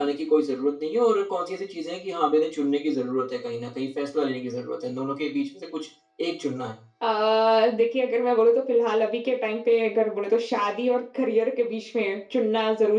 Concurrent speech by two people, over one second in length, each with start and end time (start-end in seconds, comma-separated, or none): none